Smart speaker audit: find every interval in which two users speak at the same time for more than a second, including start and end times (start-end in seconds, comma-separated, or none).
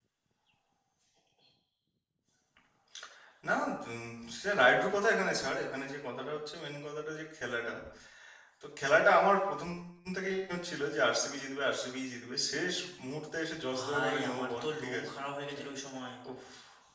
13.7-15.1